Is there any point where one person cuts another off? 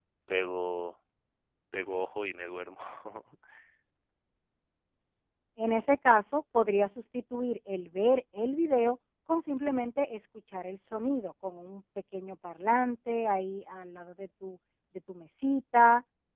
No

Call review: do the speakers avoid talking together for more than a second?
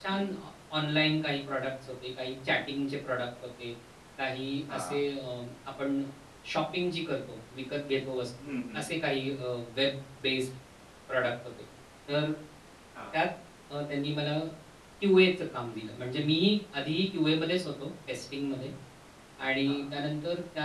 Yes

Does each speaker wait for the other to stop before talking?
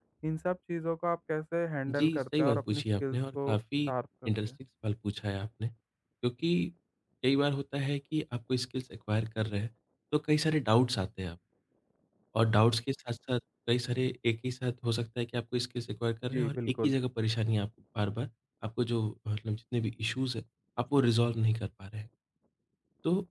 No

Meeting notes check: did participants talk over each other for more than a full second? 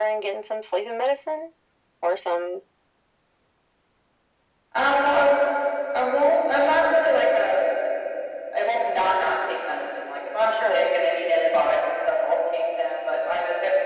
No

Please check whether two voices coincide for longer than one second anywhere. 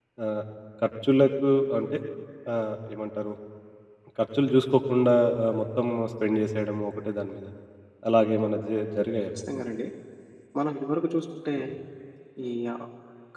No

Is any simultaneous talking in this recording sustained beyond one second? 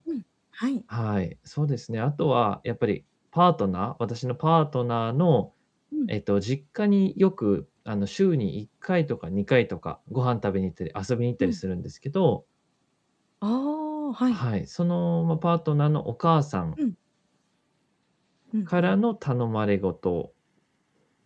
No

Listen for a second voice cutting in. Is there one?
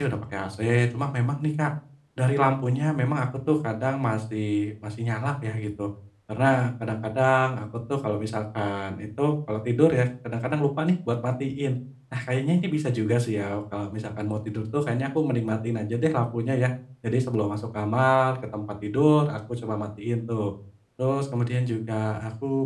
No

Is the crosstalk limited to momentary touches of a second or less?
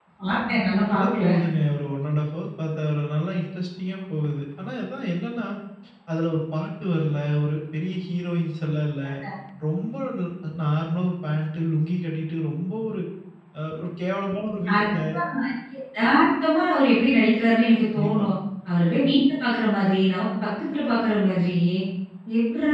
Yes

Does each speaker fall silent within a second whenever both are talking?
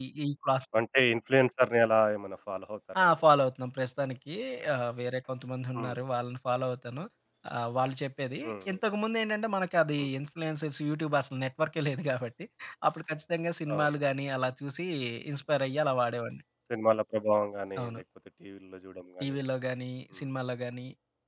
Yes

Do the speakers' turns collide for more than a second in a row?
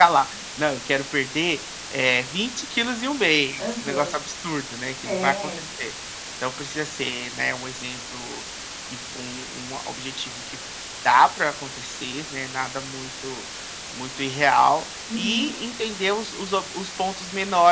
No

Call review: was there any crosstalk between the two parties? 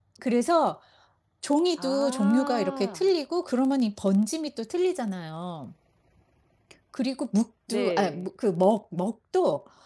Yes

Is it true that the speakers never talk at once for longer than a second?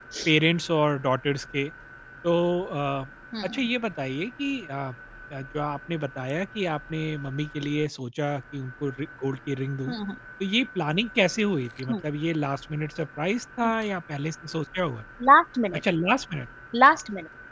Yes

